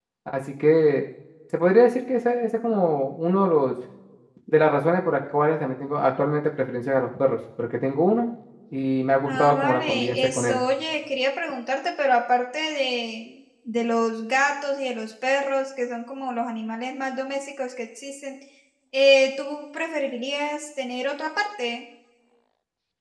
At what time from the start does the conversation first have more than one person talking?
9 s

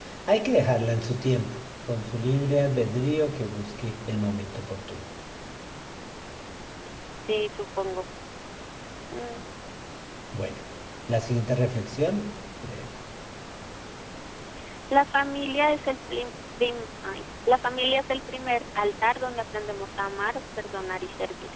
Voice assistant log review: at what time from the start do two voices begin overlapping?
none

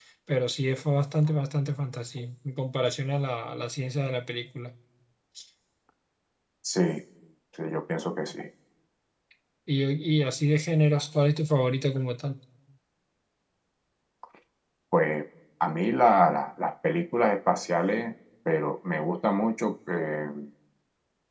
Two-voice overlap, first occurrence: none

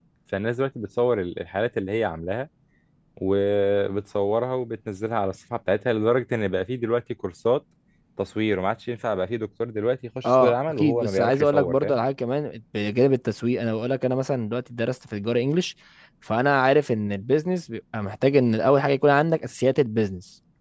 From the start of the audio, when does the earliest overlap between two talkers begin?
10 s

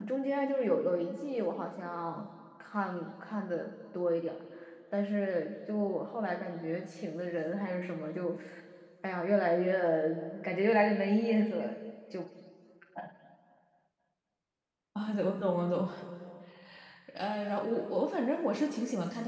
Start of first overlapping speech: none

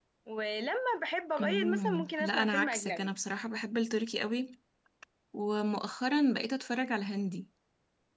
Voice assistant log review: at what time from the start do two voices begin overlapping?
1 s

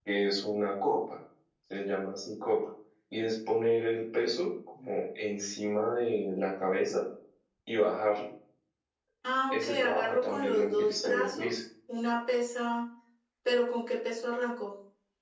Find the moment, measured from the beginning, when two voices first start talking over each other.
9 s

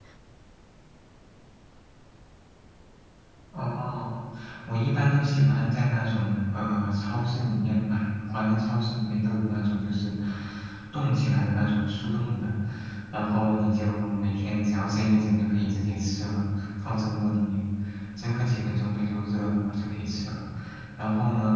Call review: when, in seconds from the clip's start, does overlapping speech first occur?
none

